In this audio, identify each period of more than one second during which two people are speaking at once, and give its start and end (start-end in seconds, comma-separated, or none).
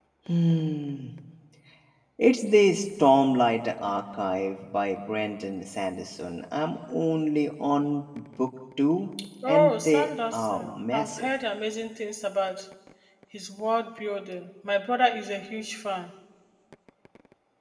9.5-11.3